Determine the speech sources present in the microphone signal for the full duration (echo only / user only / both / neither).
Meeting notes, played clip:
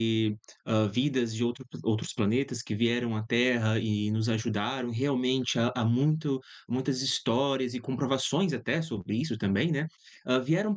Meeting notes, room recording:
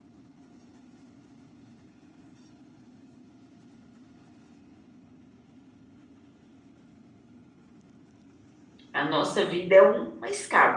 user only